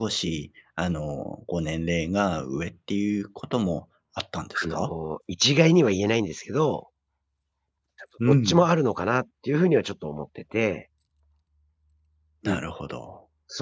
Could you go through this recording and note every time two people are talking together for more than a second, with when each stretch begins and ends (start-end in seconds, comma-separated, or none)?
none